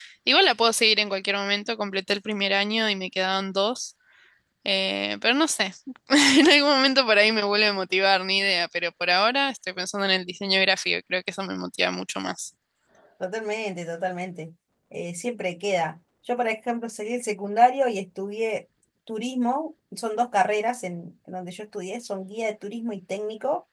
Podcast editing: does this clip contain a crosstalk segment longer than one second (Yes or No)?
No